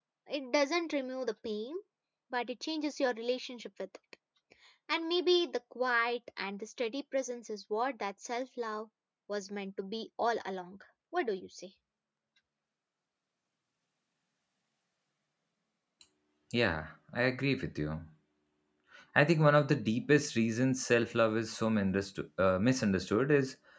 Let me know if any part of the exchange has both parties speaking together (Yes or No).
No